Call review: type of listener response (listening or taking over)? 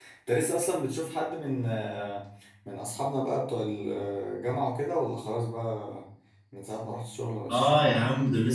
taking over